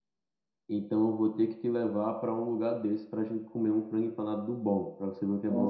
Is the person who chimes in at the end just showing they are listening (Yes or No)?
No